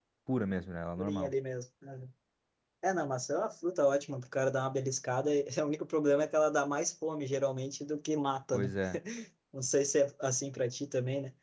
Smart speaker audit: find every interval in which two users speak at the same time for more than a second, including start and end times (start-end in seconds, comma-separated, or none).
none